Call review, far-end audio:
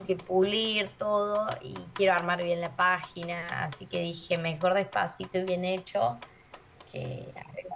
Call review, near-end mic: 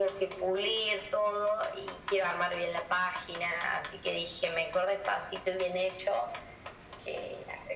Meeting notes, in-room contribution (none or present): none